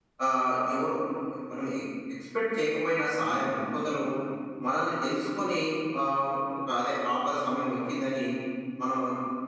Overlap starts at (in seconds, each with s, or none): none